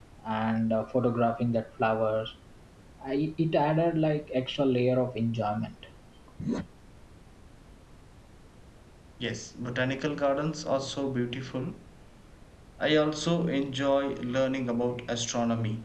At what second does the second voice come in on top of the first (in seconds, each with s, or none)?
none